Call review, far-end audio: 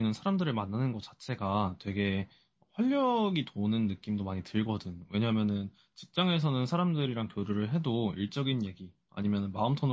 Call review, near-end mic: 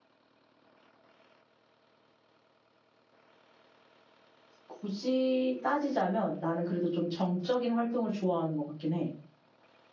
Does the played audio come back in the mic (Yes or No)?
No